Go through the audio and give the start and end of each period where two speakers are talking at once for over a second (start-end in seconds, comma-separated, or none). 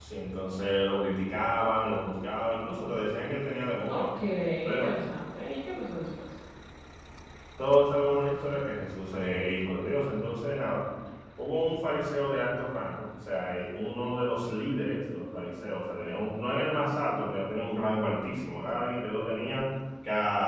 none